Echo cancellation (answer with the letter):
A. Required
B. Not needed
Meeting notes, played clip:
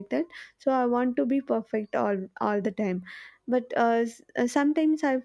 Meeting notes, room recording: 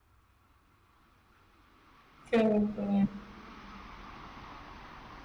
B